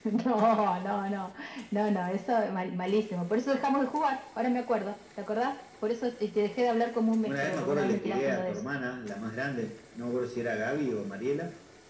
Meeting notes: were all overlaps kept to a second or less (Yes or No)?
No